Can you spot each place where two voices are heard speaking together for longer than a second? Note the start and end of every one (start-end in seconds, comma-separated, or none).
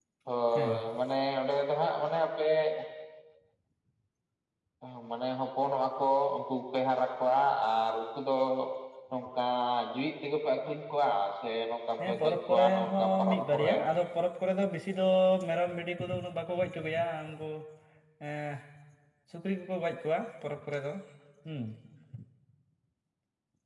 12.1-13.7